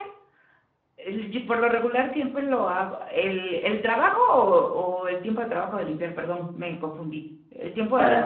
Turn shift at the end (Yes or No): Yes